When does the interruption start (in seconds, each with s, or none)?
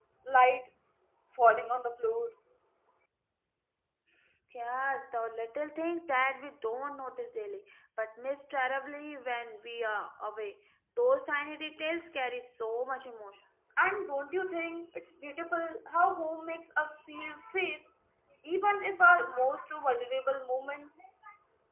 none